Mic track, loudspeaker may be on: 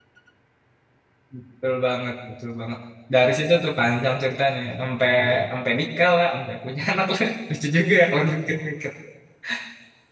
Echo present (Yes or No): No